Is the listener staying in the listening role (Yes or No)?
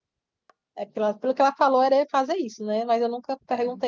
Yes